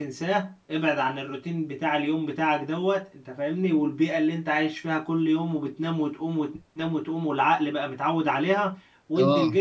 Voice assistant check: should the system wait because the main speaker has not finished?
Yes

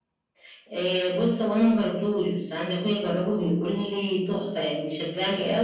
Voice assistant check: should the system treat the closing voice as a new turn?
Yes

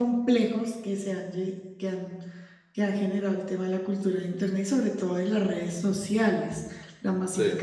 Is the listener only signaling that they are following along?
Yes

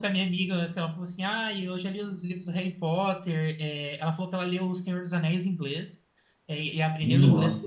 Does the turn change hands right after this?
No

